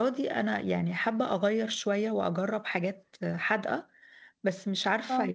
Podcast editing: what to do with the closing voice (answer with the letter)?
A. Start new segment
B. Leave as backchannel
B